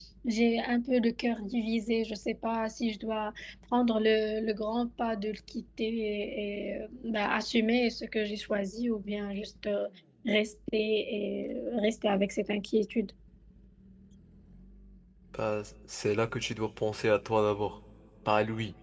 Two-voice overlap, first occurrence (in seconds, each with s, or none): none